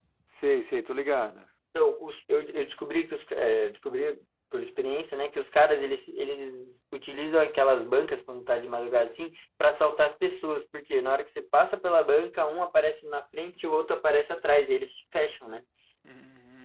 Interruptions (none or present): none